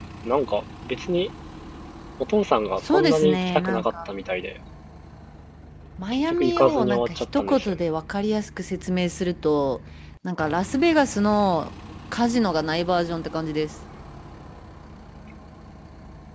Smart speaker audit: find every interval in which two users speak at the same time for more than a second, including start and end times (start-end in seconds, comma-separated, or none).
2.8-4.1, 6.1-7.7